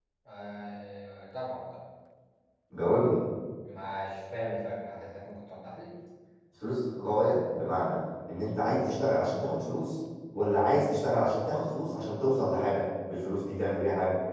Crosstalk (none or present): none